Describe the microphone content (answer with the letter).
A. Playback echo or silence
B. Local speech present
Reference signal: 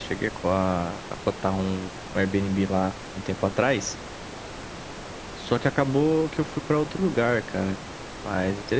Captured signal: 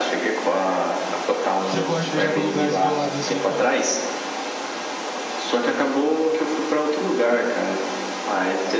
B